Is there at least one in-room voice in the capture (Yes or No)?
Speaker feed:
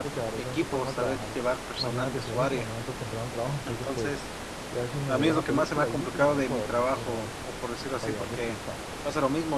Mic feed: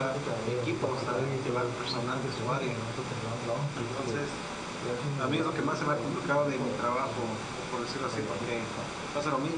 Yes